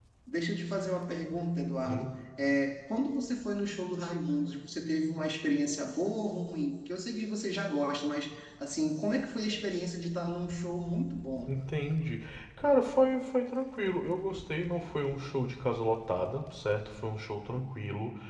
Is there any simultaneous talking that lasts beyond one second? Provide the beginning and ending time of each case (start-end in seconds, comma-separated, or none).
none